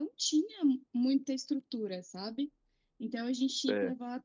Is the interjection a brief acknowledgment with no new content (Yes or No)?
Yes